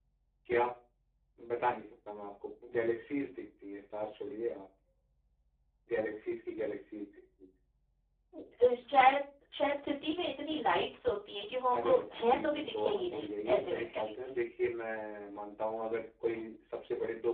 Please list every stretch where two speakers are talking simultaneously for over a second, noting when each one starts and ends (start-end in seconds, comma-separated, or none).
11.7-14.1